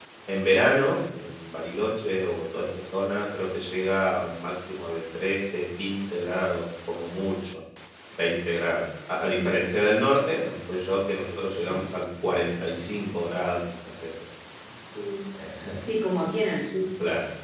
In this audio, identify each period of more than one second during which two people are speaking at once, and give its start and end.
none

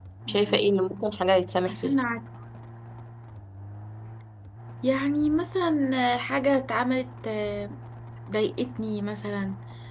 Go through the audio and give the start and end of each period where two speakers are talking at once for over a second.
none

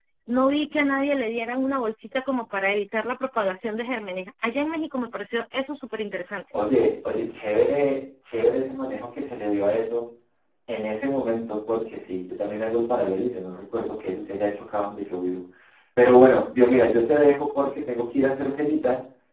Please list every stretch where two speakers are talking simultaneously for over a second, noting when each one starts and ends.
none

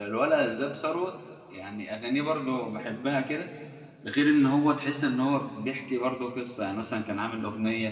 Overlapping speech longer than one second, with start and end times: none

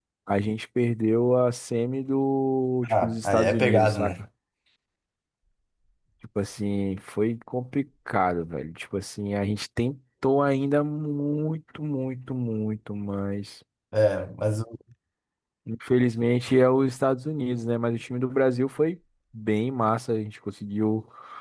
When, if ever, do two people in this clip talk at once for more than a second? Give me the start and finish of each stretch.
2.9-4.1

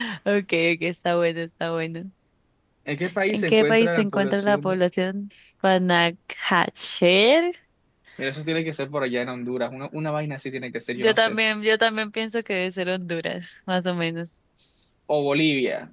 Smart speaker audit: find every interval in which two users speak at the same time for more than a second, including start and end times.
3.3-4.8

